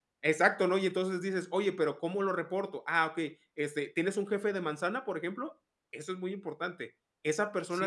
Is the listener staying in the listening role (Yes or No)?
No